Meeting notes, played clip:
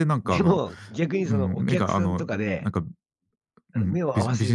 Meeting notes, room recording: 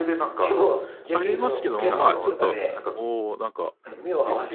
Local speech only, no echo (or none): ありますけども、まあ、ちょっと、おお、なんか、